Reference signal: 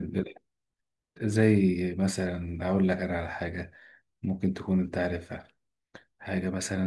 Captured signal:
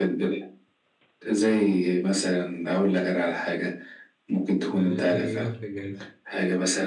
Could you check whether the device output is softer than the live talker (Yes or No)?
No